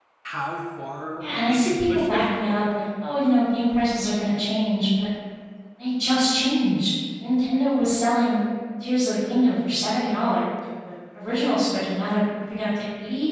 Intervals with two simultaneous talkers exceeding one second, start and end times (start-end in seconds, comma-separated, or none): 1.2-2.7